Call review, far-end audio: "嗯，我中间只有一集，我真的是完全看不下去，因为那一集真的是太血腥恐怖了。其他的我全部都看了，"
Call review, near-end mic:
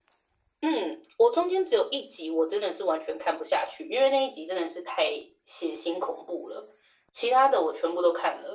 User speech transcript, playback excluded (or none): none